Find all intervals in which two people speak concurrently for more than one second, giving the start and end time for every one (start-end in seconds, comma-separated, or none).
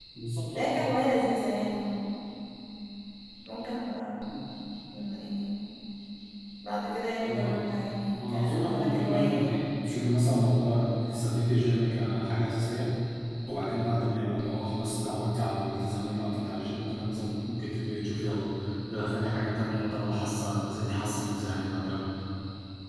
8.2-9.6